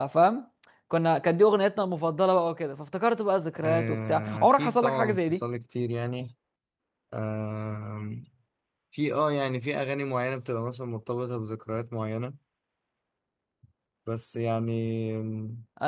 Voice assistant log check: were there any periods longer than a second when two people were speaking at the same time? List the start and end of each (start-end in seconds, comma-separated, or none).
3.6-5.4